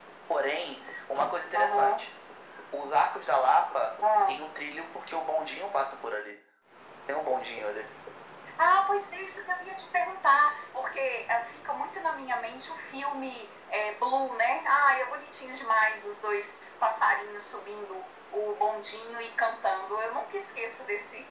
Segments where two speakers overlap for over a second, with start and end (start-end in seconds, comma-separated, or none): none